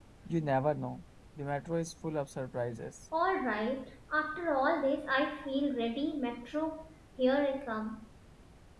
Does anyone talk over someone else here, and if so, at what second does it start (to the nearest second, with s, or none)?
none